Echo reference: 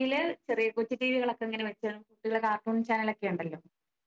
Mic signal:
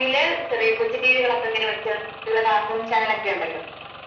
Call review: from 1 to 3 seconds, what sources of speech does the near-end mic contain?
echo only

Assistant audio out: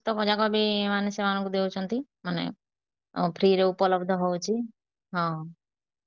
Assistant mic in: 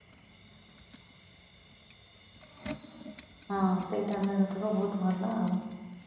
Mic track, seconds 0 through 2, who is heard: neither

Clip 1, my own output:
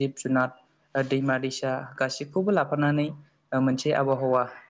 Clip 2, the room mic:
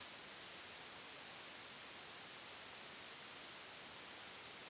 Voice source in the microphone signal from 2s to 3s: neither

